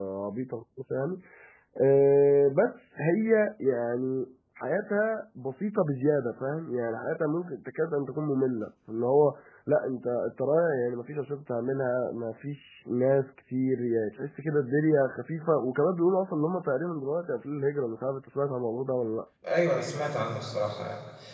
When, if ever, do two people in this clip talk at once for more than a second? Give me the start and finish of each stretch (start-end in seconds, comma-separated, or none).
none